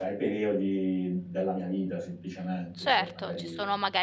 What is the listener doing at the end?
taking over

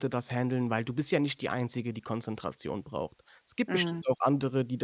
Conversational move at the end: listening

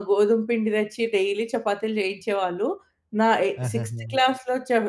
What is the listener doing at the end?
listening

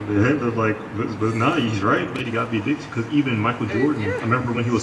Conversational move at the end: listening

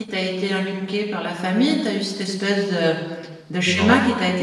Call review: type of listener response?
listening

